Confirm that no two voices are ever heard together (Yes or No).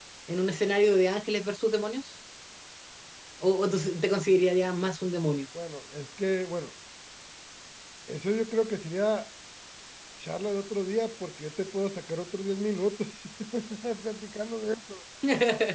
Yes